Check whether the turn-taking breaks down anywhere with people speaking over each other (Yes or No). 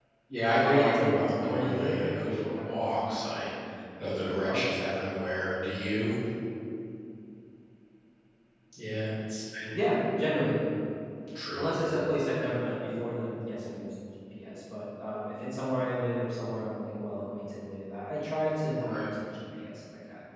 Yes